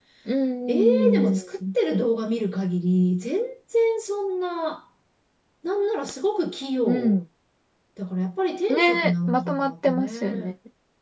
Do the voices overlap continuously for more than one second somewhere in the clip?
Yes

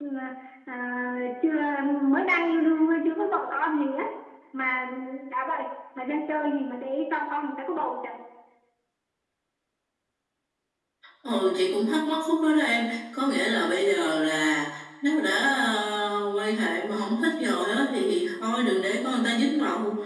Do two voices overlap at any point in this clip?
No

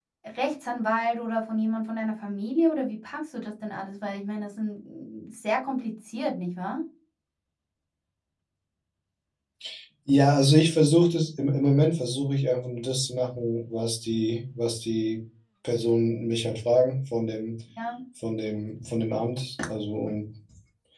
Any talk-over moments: No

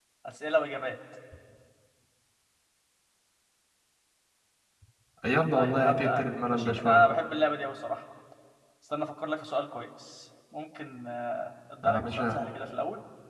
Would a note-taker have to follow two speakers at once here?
Yes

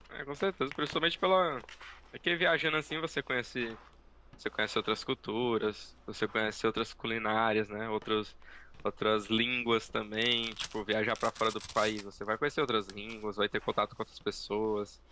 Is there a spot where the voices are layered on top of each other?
No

